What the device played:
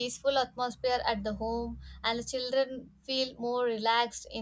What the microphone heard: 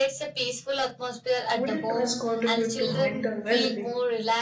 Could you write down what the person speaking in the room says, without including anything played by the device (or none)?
Wooden toys contribute to mental well being